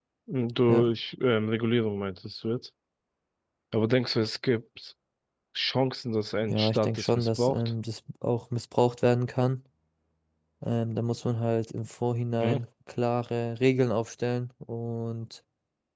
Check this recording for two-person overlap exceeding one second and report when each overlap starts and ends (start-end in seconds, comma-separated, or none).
6.5-7.7